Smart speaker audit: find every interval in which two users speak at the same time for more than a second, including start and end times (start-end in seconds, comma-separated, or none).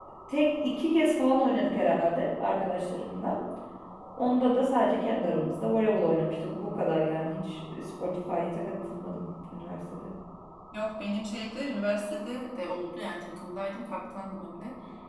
none